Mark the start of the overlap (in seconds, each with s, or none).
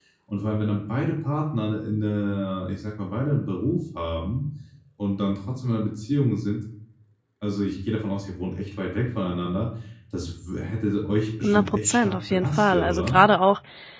11.4 s